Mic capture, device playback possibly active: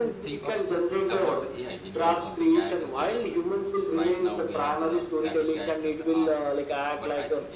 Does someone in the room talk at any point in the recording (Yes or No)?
Yes